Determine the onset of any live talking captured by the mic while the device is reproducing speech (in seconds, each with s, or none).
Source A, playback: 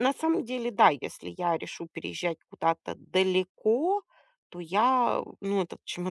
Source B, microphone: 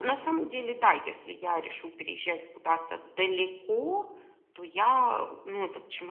none